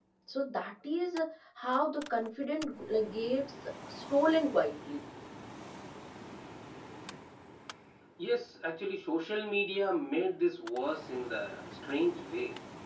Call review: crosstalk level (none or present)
none